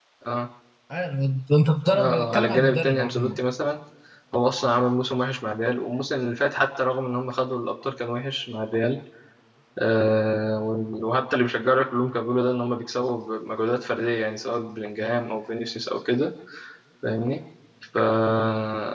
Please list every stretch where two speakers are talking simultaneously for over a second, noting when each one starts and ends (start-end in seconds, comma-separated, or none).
1.9-3.4